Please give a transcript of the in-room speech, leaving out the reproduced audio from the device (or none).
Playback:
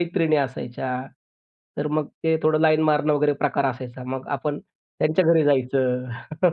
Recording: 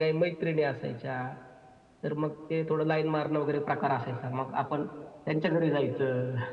none